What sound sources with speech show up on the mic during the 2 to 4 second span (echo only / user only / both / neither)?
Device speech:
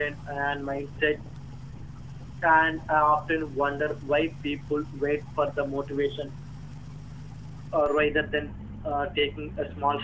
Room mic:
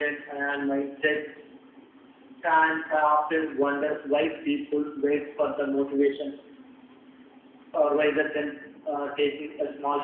echo only